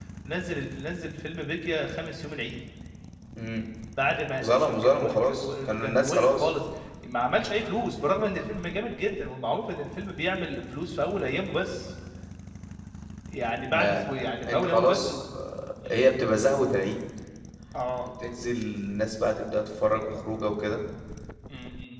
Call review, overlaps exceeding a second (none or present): present